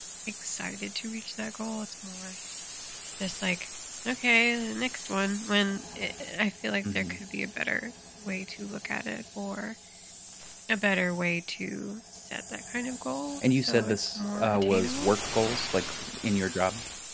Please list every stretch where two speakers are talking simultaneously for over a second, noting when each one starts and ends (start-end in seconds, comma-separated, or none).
13.6-15.1